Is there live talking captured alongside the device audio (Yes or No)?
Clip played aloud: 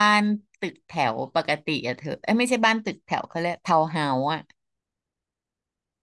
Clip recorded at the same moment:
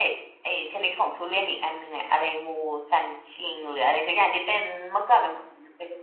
Yes